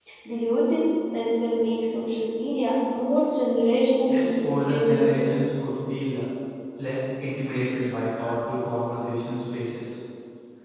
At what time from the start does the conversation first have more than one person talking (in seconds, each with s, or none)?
4.1 s